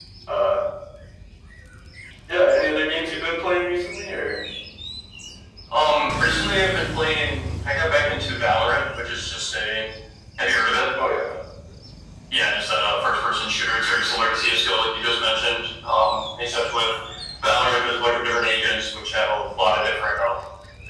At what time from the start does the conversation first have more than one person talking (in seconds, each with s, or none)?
none